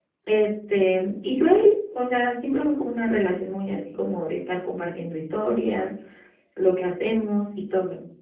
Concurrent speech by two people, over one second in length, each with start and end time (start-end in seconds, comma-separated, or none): none